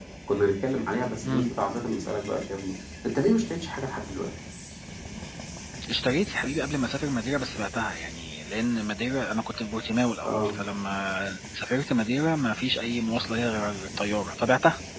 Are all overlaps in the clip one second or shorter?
Yes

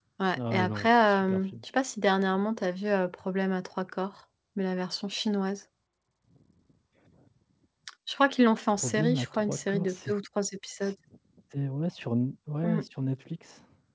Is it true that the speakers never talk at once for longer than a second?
No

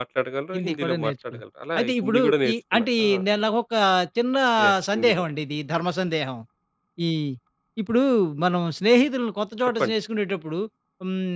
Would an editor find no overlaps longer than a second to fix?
No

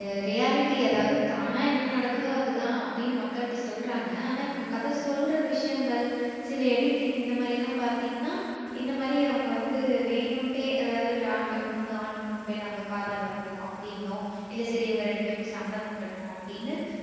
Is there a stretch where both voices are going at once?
No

